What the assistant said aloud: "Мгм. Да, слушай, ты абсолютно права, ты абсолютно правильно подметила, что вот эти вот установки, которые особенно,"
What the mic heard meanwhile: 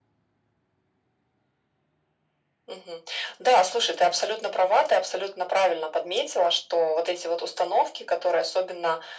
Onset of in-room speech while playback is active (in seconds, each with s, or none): none